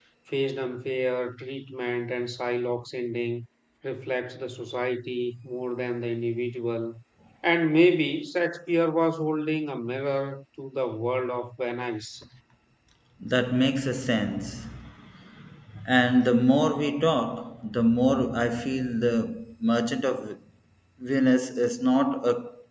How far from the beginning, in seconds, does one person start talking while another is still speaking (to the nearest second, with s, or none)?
none